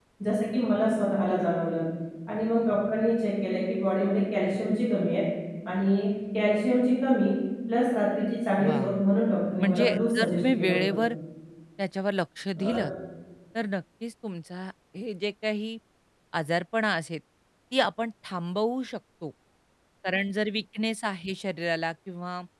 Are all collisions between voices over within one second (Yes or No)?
No